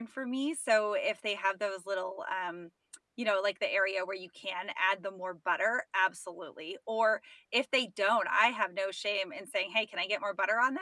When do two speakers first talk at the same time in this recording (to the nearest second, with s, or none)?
none